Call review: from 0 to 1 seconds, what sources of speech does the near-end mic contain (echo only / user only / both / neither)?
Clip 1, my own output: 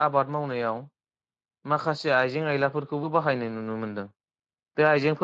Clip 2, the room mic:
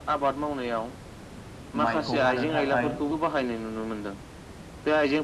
echo only